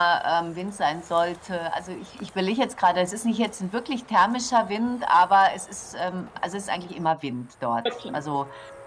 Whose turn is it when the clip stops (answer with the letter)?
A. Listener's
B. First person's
B